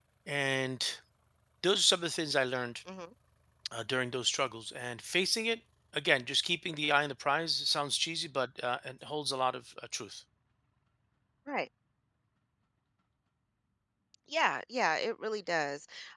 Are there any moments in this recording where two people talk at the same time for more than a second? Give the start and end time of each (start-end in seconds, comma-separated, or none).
none